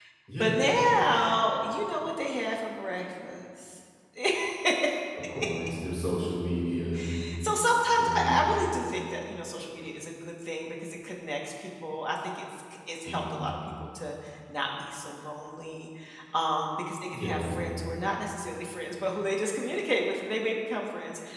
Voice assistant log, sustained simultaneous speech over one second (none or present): none